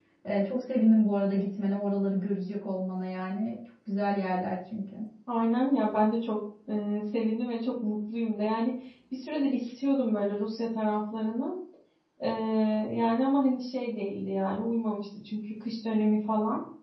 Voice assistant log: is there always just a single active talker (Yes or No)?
Yes